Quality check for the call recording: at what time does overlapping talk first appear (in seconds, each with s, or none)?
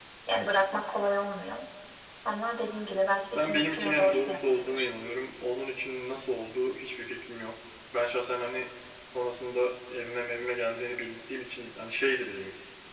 3.4 s